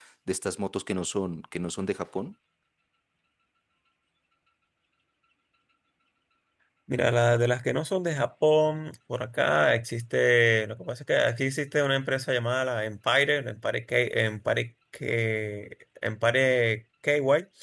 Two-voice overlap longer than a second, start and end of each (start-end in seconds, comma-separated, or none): none